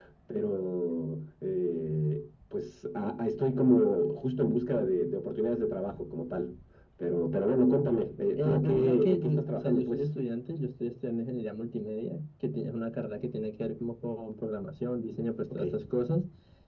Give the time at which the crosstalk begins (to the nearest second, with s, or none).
8 s